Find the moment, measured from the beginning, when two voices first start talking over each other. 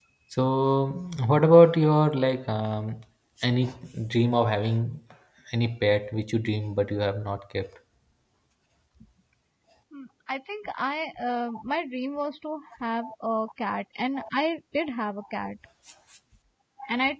none

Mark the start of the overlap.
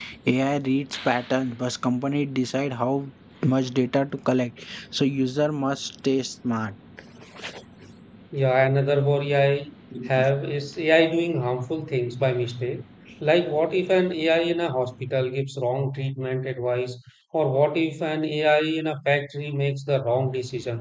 none

